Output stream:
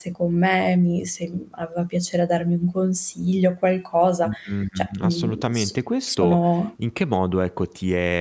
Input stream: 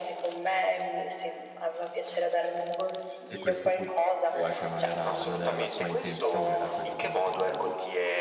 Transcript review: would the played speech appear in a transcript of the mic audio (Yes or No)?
Yes